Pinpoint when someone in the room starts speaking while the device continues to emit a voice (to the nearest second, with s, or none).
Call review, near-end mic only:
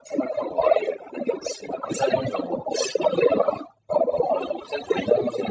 none